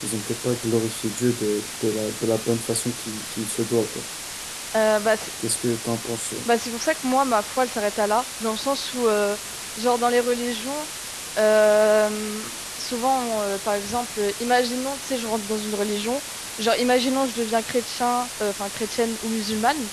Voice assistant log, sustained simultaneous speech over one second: none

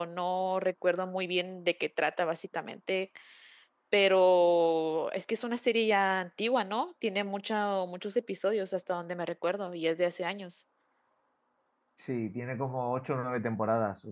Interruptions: none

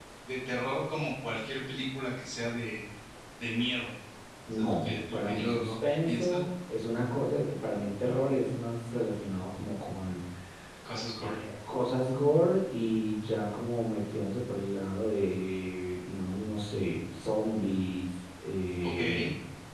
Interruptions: present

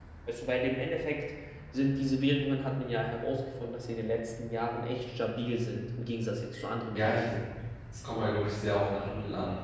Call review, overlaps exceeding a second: none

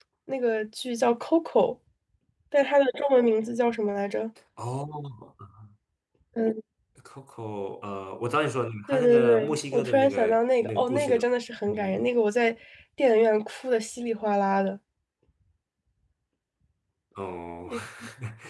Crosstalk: present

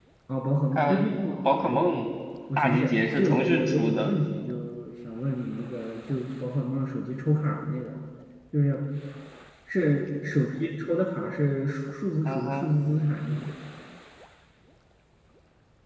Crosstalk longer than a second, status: present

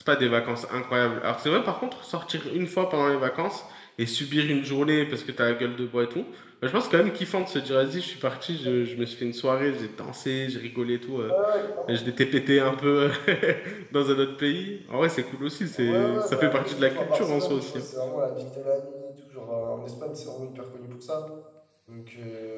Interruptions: present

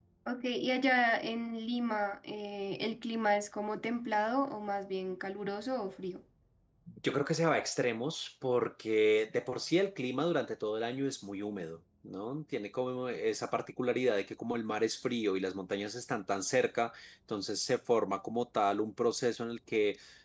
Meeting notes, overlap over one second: none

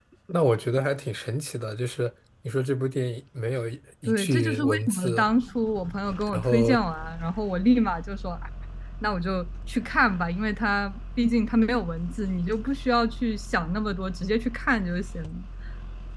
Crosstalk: present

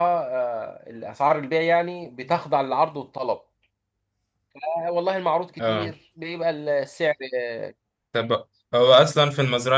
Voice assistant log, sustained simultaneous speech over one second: none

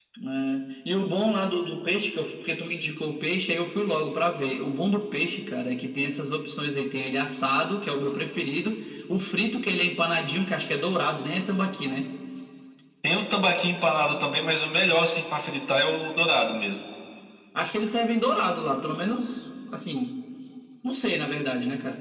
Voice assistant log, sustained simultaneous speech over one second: none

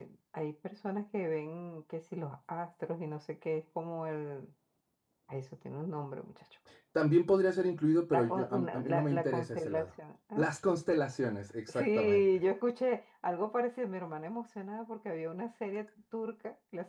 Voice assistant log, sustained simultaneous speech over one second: present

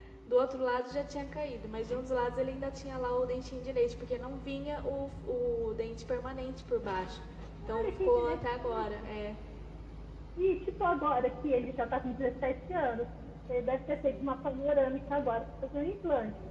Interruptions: present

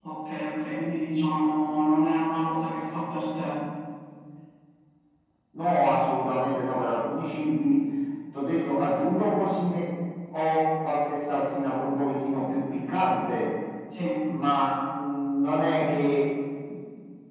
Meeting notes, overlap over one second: none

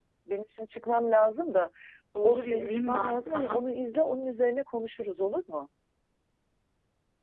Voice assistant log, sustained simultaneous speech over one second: present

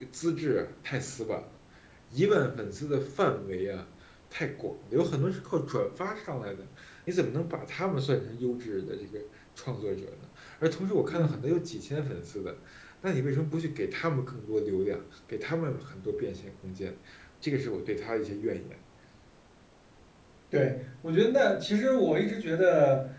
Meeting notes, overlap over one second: none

